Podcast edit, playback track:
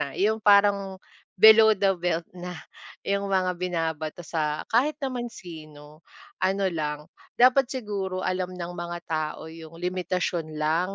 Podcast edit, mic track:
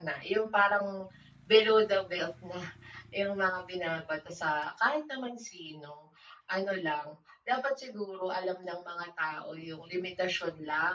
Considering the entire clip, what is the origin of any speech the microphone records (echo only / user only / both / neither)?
echo only